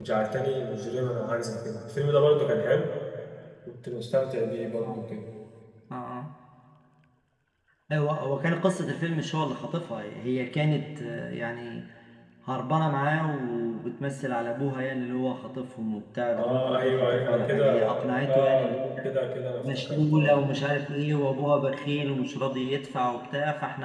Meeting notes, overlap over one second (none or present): present